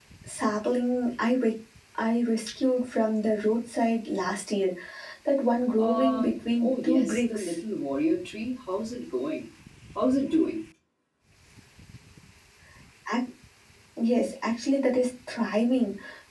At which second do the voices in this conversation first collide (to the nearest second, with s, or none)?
6 s